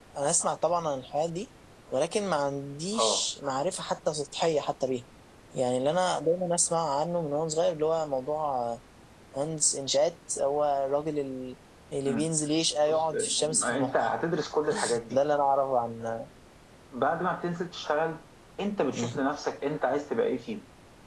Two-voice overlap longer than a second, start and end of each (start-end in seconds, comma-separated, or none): 12.8-14.1